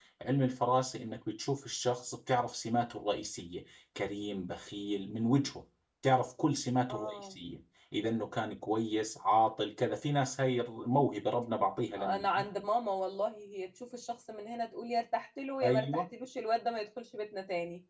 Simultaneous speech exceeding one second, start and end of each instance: none

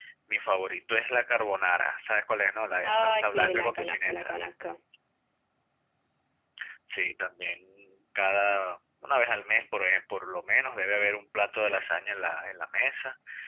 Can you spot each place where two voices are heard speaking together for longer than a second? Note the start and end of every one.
2.8-4.3

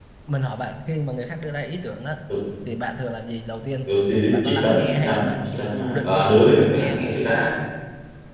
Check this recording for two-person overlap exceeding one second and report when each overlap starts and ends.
4.3-7.0

